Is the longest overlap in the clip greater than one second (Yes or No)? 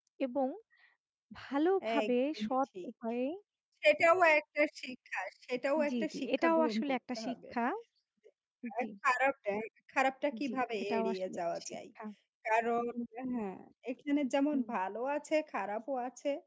Yes